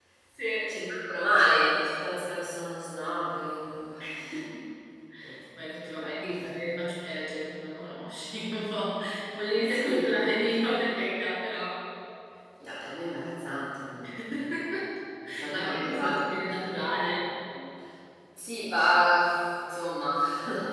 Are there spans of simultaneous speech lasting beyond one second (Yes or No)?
Yes